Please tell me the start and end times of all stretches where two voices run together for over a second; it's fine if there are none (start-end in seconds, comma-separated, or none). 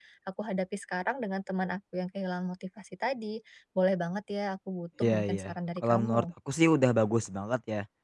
5.0-6.2